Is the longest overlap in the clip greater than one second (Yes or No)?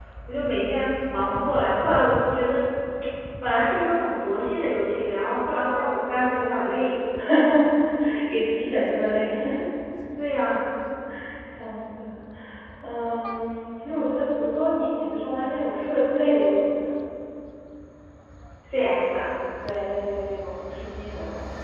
No